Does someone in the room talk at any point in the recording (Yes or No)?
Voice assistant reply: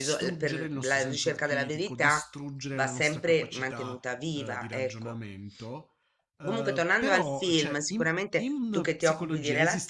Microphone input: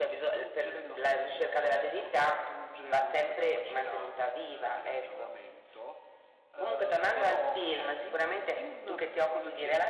No